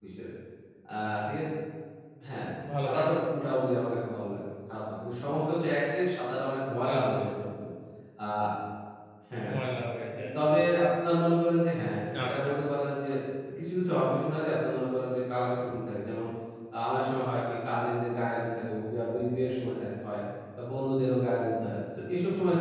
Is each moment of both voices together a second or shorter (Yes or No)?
Yes